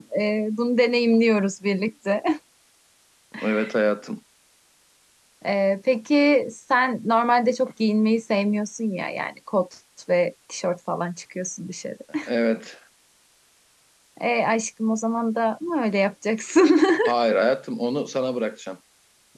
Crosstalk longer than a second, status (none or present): none